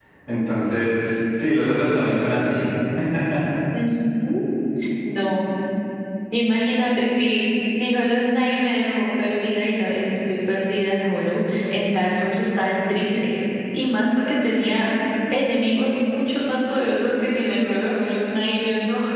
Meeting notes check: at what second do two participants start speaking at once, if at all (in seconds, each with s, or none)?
none